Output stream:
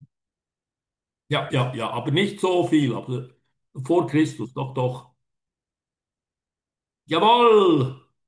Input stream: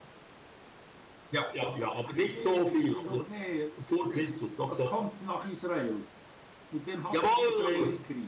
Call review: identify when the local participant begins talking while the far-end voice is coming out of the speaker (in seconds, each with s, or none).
2.2 s